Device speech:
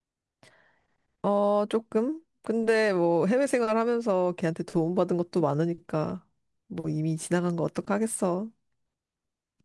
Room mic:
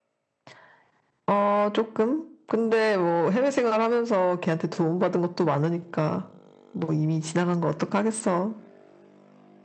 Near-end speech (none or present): none